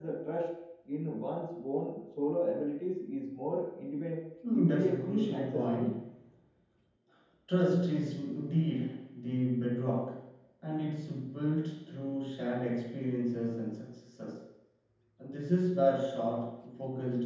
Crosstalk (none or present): present